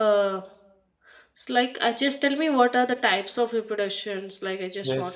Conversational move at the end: taking over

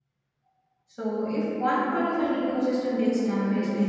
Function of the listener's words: taking over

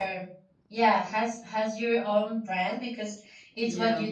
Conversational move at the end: listening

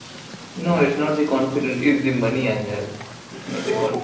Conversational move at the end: taking over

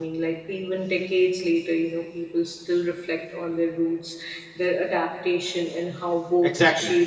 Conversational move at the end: taking over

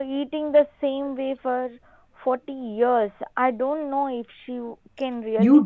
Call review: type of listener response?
taking over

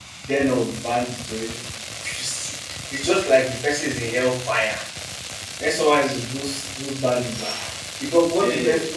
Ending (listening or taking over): listening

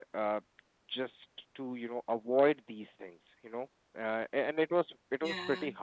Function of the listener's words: listening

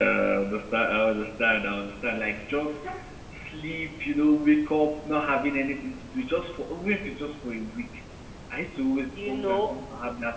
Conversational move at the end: listening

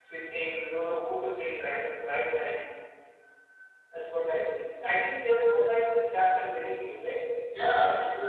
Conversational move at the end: taking over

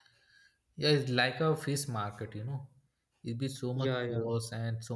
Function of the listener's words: listening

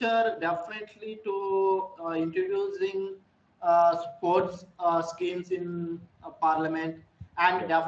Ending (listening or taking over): listening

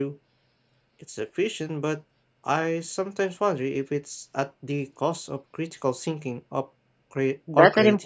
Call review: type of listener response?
taking over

